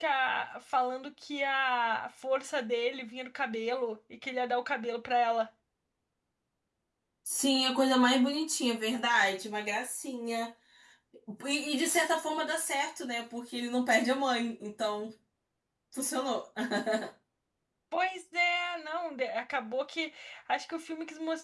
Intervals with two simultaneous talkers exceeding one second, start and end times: none

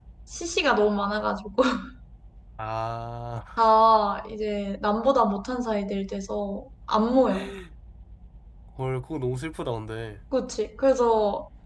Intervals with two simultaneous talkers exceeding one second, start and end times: none

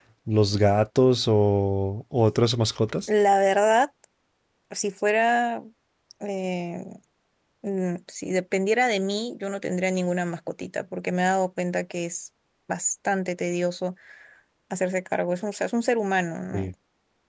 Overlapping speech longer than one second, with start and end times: none

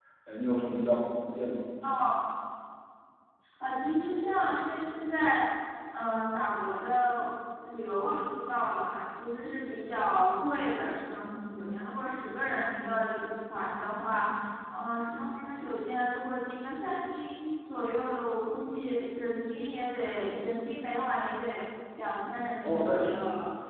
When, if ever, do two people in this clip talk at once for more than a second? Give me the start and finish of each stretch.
none

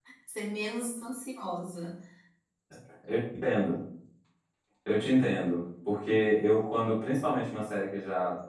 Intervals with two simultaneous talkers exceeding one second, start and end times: none

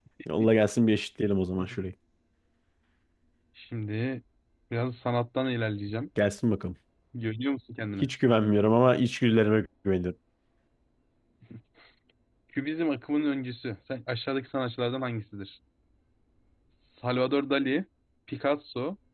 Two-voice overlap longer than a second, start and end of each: none

